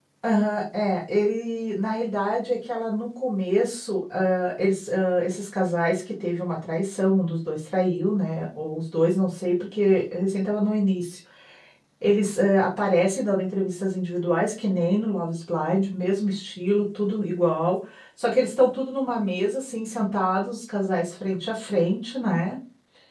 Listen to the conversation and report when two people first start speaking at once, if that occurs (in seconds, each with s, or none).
none